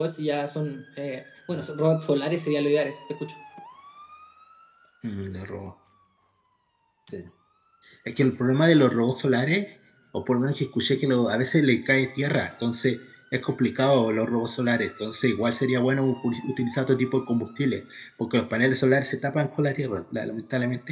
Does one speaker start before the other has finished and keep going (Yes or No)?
No